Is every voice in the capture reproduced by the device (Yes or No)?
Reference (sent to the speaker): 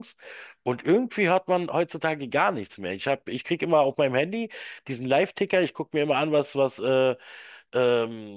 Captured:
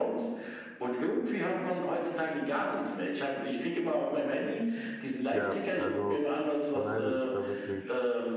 No